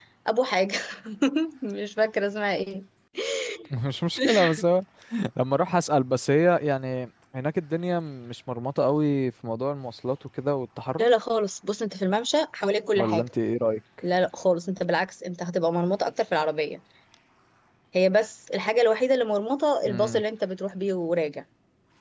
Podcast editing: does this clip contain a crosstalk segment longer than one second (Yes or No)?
No